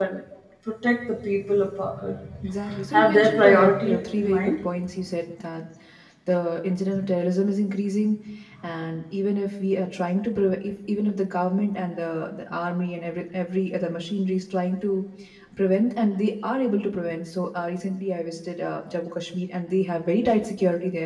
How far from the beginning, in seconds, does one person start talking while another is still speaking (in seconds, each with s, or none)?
2.9 s